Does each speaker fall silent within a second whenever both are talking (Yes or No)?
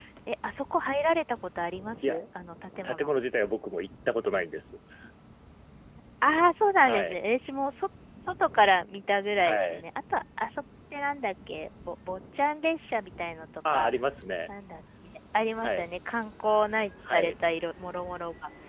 Yes